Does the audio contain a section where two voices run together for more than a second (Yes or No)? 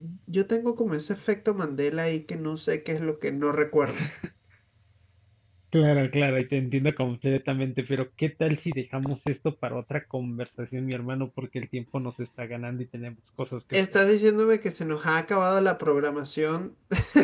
No